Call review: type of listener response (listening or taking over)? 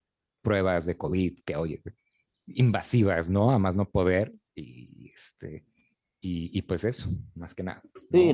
taking over